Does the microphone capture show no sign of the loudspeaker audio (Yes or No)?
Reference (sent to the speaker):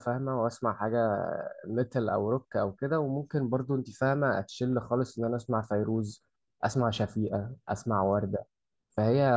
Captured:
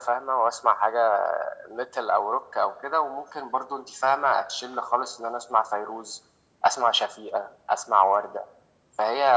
No